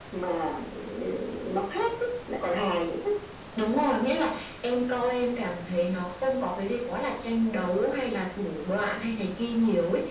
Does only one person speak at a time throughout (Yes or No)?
Yes